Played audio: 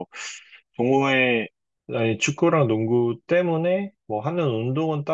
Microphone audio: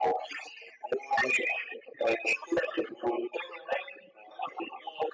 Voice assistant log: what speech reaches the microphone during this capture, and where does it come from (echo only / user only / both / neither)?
echo only